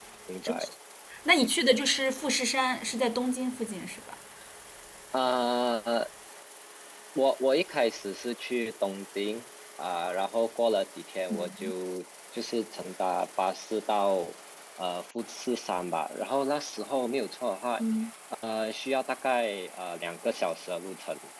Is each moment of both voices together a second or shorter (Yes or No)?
Yes